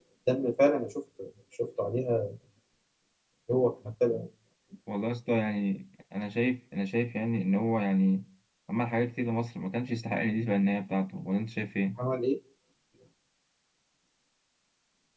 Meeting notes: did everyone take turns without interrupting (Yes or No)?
Yes